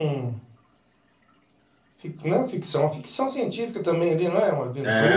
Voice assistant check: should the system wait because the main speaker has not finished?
No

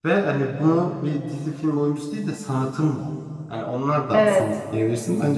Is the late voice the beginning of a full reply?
No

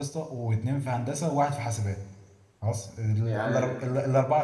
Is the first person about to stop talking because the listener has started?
No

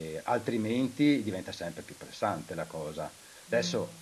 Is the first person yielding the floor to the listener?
Yes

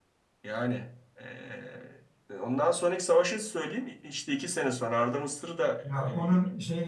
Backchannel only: No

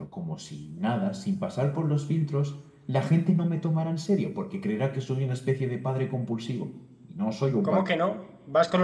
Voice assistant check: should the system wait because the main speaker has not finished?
No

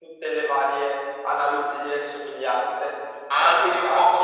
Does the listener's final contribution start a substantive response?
Yes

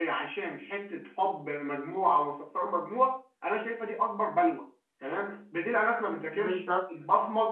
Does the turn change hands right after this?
No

